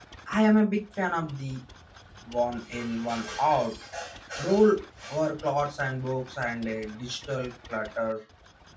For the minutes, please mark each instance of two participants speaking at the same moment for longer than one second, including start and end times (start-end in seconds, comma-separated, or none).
none